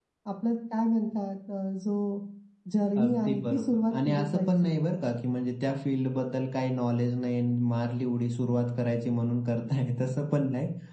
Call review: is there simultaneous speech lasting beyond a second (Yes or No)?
Yes